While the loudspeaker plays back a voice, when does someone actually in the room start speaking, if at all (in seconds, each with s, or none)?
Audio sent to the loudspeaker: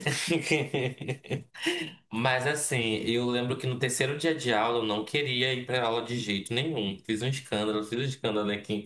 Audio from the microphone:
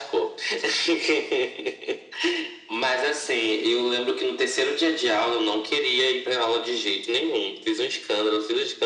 none